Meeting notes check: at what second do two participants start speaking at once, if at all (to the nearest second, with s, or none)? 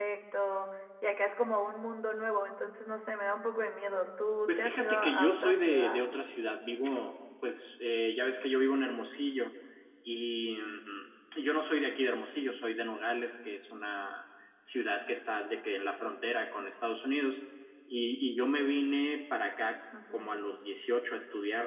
4 s